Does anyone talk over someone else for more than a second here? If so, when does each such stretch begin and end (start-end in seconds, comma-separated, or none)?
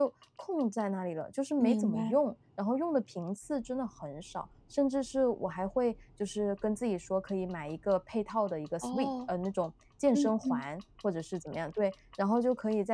none